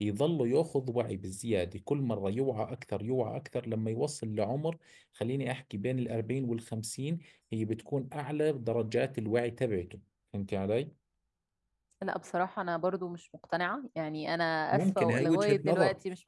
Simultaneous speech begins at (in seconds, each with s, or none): 14.7 s